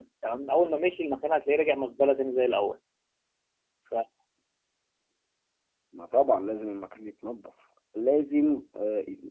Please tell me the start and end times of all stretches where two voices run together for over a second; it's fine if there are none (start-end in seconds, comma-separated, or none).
none